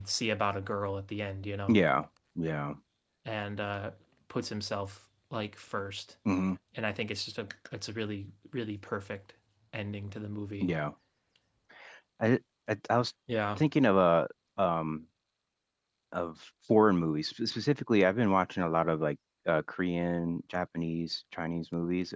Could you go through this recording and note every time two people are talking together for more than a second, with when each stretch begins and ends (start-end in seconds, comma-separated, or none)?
none